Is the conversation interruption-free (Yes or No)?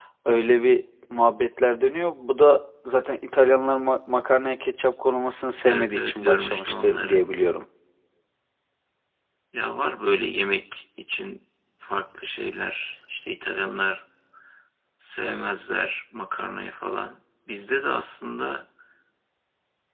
No